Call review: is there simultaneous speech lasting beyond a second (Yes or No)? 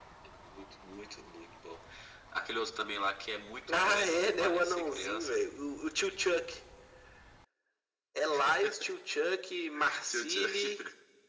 Yes